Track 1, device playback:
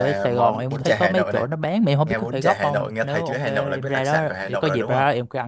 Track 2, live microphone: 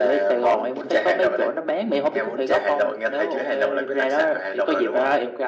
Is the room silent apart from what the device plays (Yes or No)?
Yes